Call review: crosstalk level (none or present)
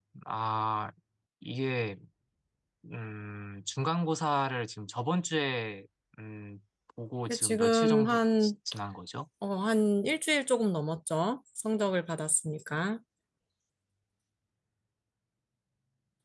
present